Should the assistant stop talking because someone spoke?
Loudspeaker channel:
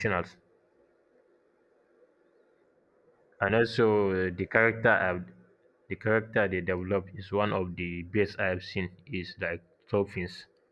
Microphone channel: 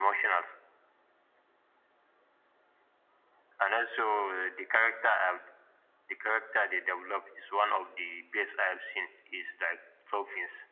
No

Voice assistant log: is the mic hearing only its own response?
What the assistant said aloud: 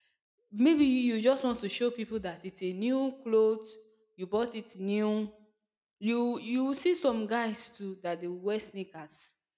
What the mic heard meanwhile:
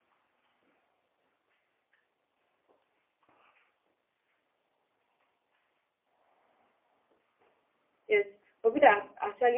No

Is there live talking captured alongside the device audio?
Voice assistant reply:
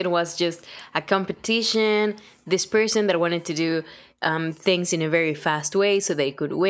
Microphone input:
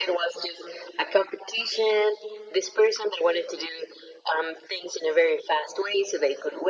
No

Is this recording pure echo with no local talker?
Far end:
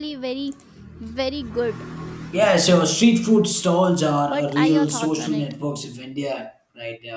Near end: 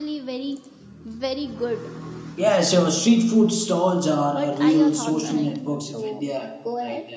No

